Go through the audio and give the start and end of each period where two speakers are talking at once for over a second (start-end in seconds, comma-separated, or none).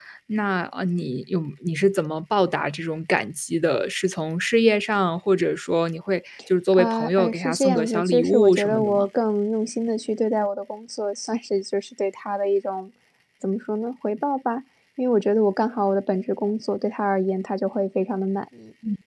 6.7-9.1